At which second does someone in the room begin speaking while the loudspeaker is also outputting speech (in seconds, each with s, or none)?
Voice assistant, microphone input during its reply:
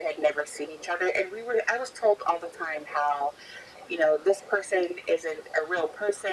none